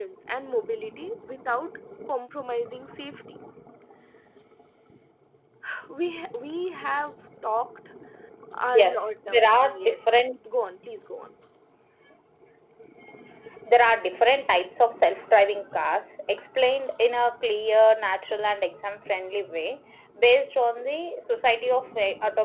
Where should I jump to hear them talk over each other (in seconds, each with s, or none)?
8.7 s